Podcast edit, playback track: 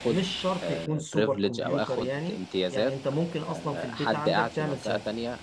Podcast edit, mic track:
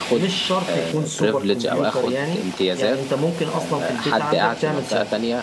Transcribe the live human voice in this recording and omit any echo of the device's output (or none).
none